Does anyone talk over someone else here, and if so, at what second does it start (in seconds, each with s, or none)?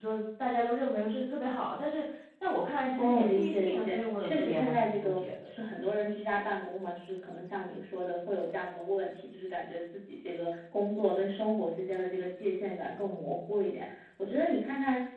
3.0 s